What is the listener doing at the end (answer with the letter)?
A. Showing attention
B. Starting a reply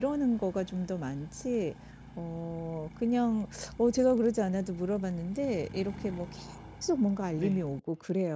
A